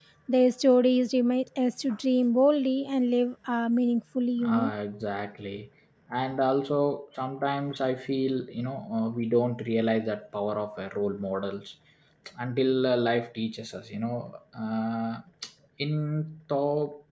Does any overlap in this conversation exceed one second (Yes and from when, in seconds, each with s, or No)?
No